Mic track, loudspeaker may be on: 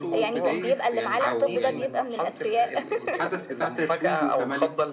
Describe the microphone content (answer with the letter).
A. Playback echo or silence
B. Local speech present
B